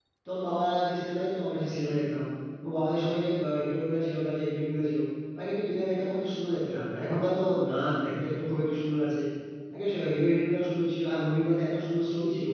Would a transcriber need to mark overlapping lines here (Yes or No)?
No